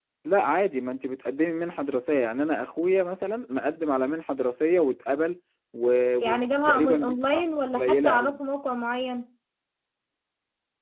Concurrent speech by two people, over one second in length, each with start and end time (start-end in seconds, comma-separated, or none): 6.2-8.4